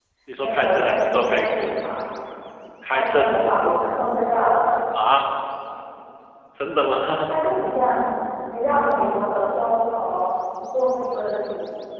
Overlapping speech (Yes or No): Yes